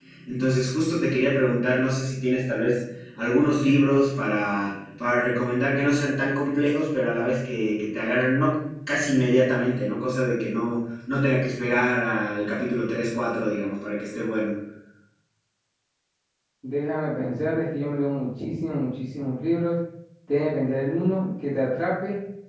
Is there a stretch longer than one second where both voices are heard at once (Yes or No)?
No